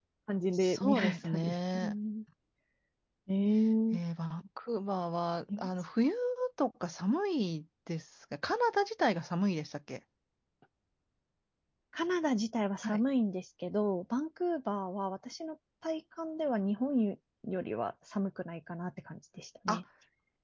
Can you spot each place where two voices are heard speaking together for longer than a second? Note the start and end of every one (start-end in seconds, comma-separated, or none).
0.5-1.9